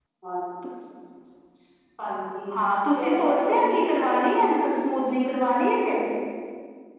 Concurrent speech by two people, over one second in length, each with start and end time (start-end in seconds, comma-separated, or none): 3.0-4.4